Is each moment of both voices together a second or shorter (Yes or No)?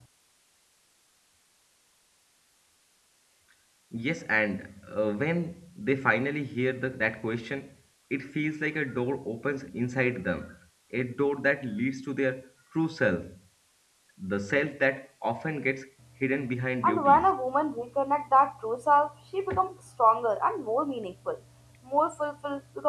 Yes